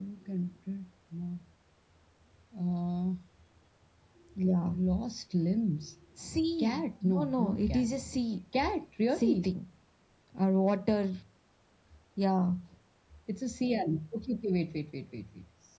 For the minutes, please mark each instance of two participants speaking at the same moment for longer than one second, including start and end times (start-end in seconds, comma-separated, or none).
6.6-7.8